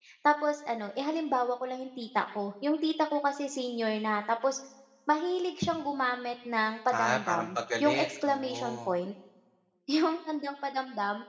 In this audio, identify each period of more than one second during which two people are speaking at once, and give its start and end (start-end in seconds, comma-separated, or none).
7.0-8.8